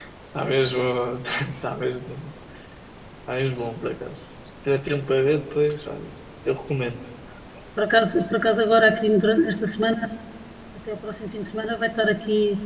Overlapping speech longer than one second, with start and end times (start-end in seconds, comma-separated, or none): none